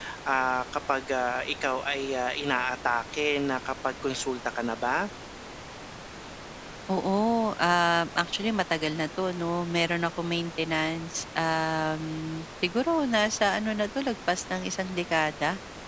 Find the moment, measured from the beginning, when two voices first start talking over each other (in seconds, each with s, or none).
none